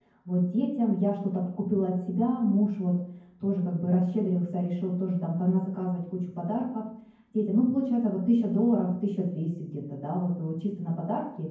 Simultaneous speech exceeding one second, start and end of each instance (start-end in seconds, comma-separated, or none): none